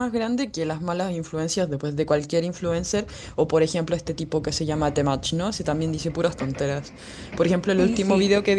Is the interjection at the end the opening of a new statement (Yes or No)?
No